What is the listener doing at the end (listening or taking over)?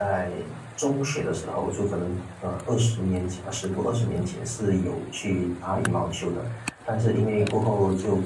listening